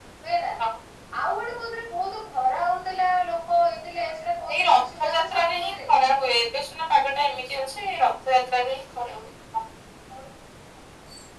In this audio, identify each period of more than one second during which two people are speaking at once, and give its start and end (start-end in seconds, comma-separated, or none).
4.5-5.9